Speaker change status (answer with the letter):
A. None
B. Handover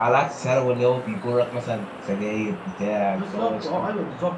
B